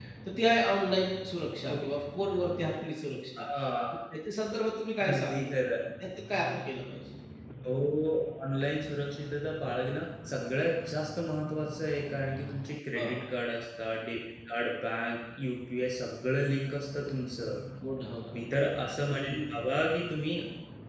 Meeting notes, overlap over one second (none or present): none